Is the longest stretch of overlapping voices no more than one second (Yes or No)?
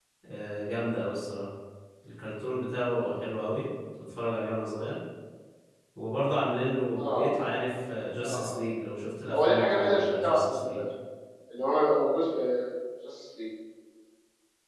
No